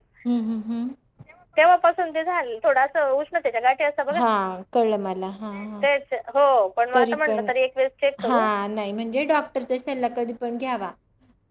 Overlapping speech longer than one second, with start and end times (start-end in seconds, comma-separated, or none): none